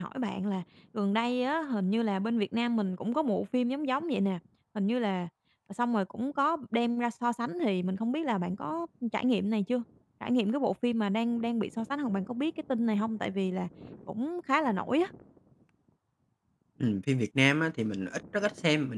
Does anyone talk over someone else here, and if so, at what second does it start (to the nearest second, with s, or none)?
none